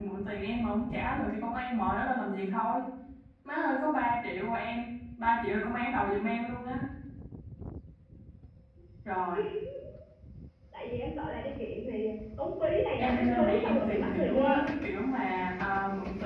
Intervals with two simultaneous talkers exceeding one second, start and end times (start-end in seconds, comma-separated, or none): 13.0-14.8